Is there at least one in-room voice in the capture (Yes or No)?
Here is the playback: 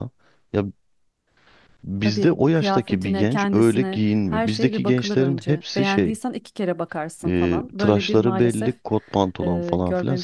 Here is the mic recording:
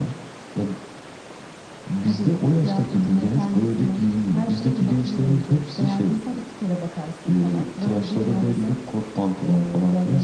No